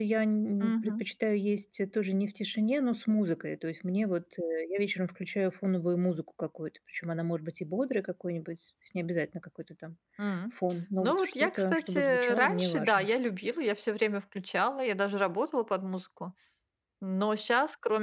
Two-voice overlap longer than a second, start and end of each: 11.0-13.1

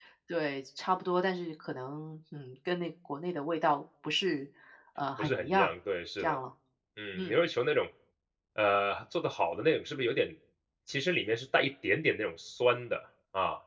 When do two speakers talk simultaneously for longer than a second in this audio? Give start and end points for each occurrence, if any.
none

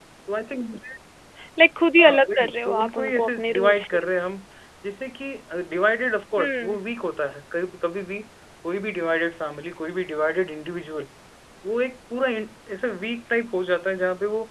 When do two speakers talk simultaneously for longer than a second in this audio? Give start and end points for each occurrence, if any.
2.0-4.0

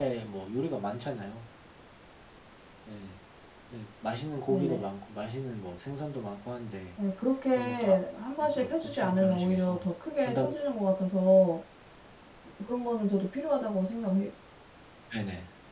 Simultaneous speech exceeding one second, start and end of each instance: 8.6-9.8

